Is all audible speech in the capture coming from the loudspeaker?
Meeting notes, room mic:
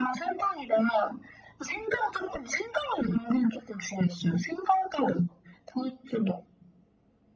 Yes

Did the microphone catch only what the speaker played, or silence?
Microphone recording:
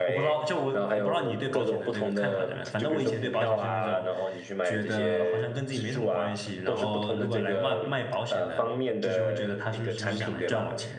No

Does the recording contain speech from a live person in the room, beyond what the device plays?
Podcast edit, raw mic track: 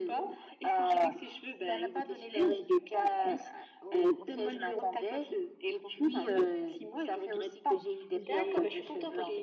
Yes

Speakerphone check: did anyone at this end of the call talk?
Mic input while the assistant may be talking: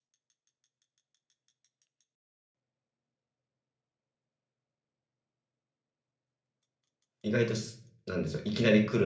Yes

